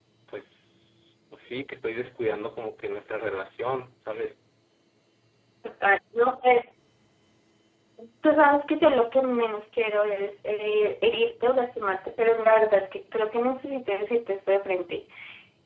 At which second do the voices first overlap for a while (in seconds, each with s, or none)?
none